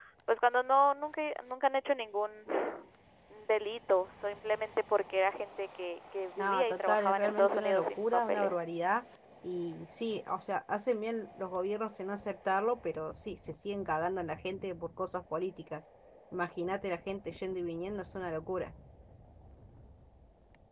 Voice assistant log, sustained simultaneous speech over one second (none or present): present